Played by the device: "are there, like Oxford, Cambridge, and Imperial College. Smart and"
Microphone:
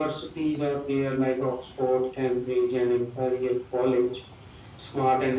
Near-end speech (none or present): none